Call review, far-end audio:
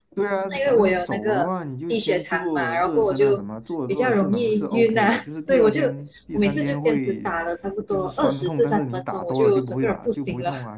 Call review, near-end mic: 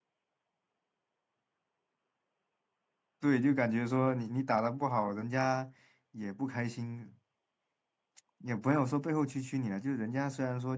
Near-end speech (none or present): present